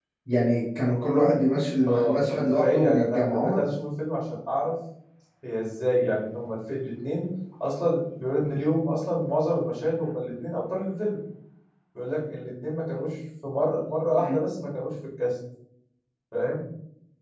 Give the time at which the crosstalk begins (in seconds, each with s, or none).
1.9 s